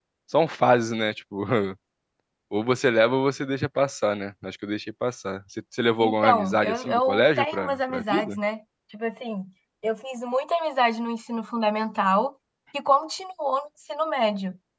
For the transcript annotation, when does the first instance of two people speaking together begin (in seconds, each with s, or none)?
6.0 s